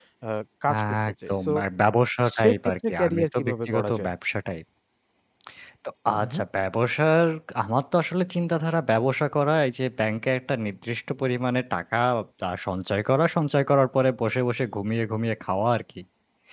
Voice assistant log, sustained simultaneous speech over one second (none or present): present